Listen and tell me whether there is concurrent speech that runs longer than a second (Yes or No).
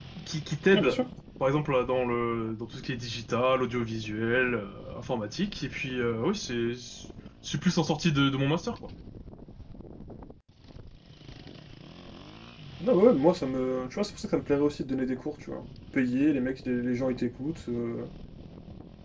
No